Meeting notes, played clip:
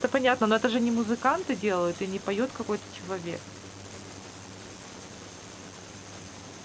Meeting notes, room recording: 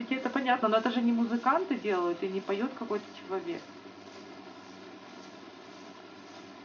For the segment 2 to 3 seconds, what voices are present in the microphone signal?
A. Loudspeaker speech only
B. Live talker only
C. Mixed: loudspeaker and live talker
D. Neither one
A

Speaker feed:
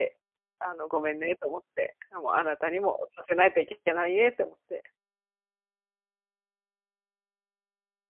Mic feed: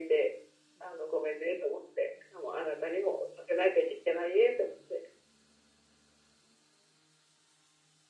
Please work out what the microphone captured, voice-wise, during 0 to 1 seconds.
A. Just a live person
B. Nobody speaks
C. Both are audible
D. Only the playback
D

